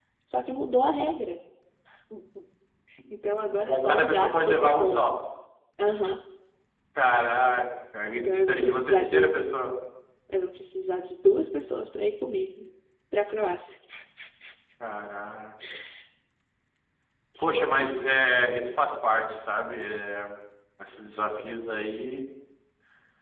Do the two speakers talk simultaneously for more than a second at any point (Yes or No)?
Yes